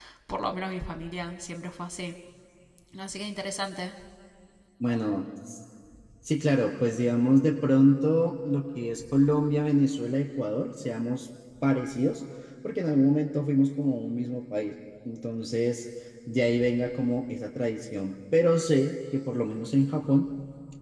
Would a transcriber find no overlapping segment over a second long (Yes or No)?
Yes